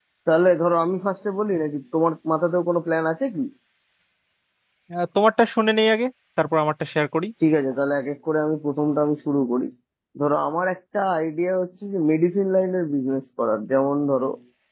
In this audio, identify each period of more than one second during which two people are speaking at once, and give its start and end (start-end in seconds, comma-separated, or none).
none